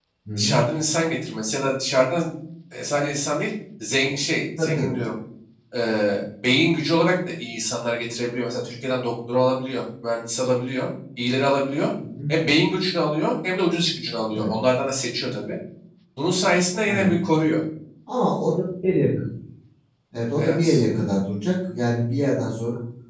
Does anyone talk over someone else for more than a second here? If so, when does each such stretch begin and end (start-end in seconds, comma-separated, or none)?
none